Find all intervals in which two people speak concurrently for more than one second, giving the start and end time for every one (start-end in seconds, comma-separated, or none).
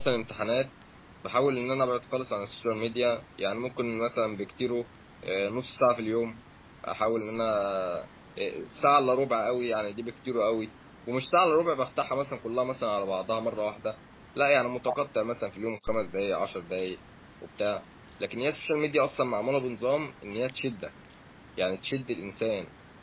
none